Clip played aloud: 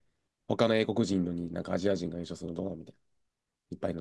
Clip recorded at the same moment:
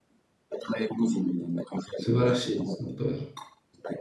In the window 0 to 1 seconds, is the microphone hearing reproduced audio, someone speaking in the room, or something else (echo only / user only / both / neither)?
echo only